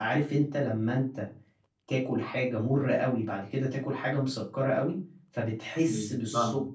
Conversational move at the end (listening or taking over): listening